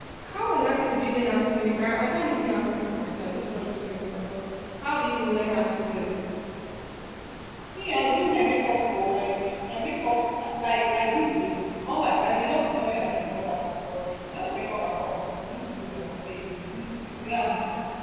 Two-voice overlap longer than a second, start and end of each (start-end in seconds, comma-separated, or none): none